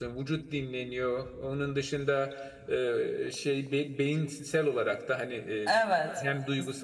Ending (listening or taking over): listening